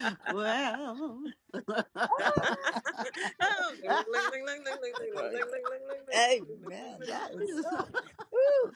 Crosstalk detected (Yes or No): Yes